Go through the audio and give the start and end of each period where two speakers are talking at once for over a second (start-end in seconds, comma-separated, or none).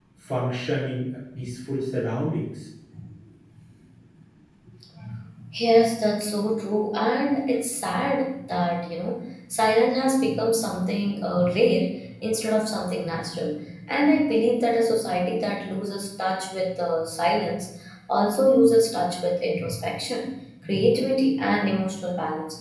none